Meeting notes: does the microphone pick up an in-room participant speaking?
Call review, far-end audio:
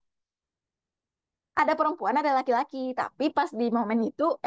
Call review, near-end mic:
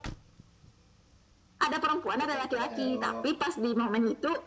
Yes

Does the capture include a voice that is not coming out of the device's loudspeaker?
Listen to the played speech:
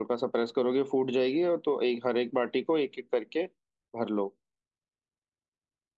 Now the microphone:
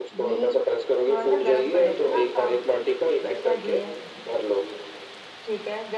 Yes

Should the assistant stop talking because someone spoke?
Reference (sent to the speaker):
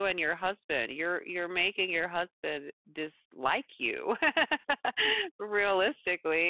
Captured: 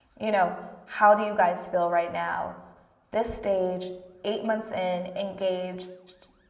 Yes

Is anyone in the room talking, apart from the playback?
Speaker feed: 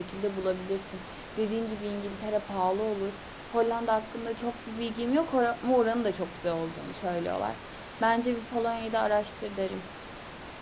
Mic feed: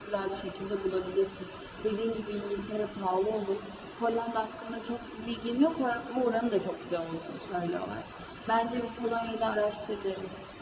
No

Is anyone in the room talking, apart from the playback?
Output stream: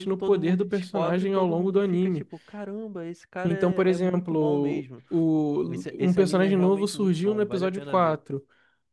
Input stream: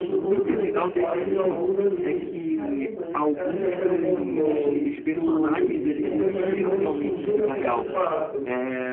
Yes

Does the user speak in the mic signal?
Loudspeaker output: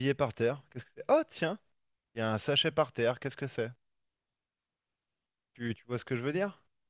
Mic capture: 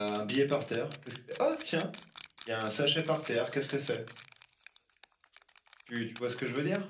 No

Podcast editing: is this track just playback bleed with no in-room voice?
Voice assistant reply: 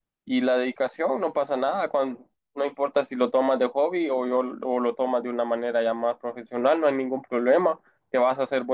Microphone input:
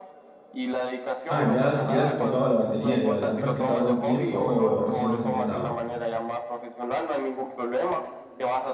No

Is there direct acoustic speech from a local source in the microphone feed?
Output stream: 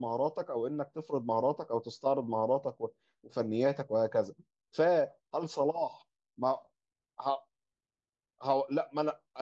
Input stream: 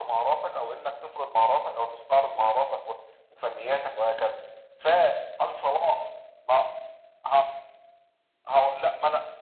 No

